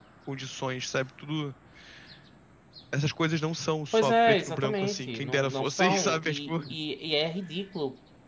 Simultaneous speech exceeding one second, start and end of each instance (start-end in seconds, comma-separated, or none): 3.9-6.5